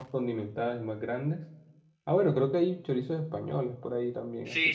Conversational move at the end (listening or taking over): taking over